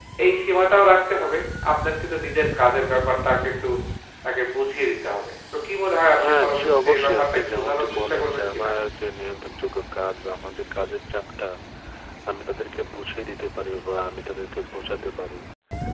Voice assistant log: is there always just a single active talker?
No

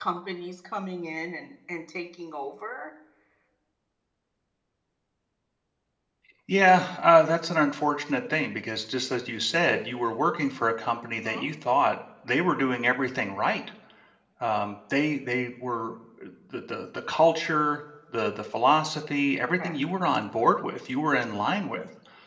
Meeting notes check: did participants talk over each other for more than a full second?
No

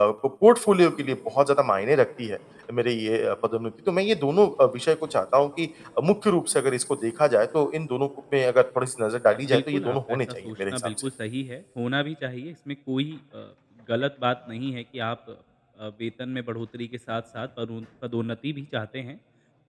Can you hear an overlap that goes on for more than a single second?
Yes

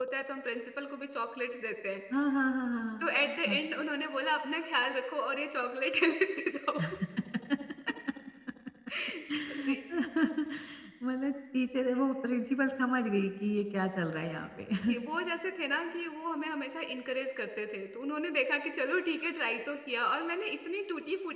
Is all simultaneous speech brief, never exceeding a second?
Yes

